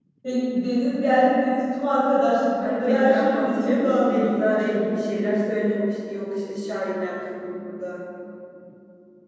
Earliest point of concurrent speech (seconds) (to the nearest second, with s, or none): 3 s